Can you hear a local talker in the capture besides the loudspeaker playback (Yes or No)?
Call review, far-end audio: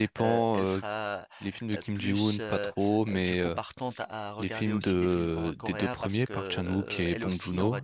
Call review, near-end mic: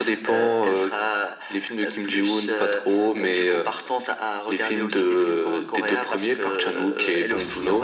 No